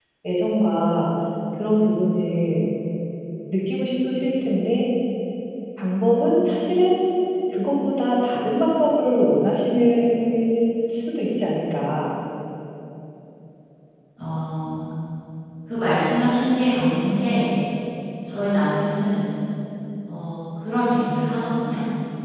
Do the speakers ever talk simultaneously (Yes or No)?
No